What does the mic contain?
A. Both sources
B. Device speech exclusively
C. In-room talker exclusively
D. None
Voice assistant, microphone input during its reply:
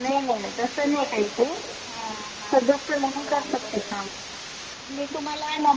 B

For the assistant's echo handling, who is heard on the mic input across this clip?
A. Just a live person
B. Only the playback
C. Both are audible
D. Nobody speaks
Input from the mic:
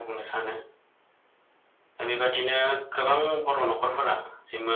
B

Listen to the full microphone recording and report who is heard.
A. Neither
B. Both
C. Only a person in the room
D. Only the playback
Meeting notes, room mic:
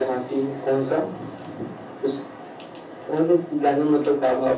D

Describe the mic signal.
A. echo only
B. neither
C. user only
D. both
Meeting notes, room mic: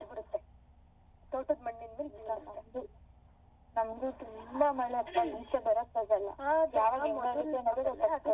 A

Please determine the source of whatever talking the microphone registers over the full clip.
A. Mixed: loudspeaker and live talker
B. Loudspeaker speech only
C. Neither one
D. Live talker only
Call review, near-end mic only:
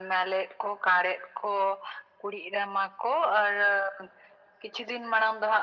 B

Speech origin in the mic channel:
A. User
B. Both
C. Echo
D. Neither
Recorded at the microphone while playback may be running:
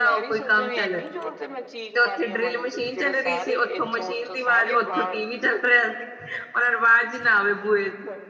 B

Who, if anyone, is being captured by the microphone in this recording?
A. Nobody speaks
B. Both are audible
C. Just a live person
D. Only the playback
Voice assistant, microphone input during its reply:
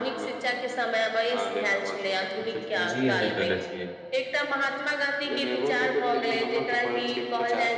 B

